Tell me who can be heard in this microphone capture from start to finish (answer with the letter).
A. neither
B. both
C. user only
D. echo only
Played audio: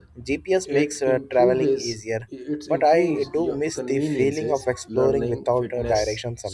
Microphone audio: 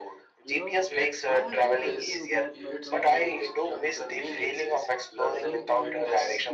B